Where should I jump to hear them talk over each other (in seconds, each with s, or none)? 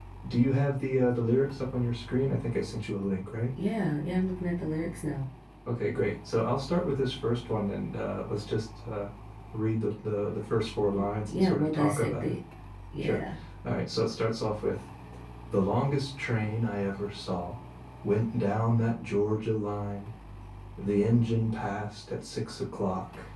10.9 s